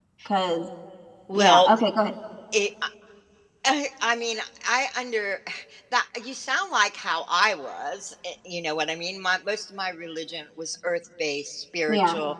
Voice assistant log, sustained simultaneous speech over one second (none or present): none